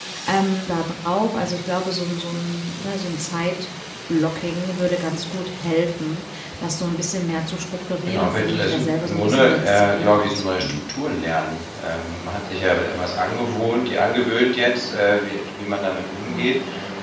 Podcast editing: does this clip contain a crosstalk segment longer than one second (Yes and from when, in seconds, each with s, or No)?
Yes, from 8.1 s